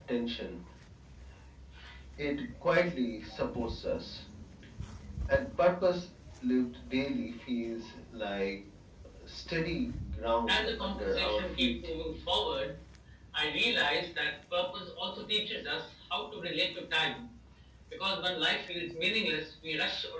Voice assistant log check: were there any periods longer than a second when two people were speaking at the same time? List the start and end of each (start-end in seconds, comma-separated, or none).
10.5-11.7